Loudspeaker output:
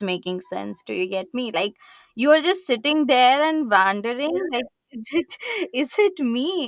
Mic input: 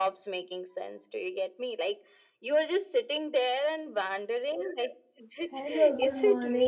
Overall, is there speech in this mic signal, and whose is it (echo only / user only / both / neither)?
both